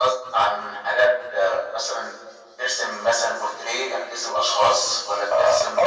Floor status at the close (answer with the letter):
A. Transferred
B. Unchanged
A